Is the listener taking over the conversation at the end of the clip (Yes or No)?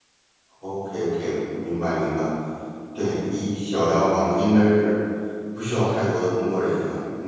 Yes